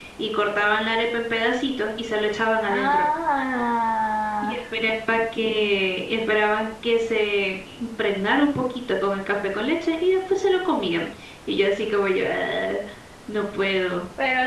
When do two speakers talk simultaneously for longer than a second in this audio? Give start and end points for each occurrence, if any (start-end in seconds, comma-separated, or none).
none